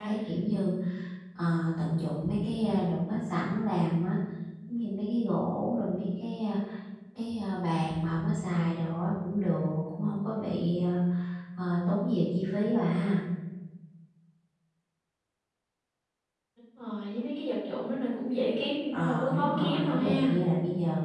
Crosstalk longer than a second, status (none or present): present